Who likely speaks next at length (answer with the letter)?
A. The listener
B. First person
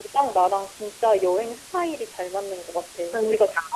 B